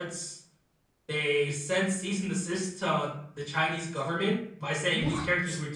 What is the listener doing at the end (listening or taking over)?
listening